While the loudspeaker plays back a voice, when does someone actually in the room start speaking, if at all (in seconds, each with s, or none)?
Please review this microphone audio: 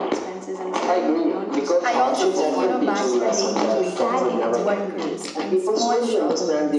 1.8 s